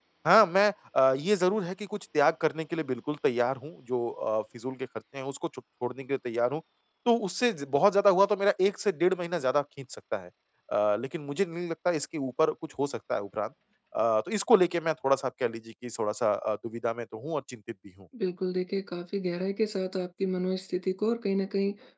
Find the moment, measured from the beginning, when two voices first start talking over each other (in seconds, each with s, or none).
none